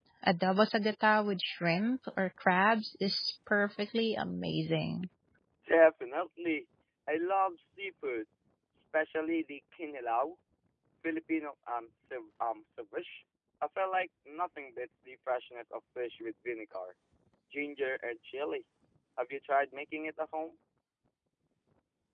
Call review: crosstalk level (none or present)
none